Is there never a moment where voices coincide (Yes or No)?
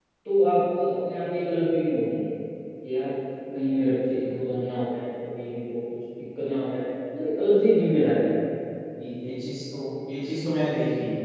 Yes